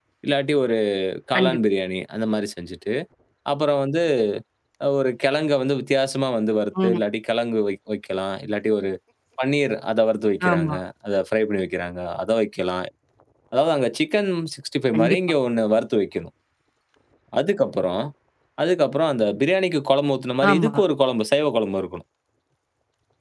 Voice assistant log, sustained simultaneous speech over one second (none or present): none